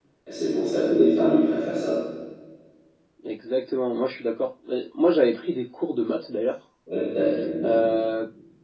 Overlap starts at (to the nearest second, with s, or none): none